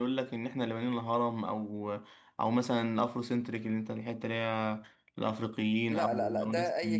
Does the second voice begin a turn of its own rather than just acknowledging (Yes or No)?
Yes